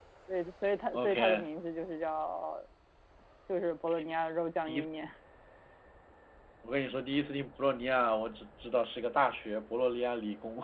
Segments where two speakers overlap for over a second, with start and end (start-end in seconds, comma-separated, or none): none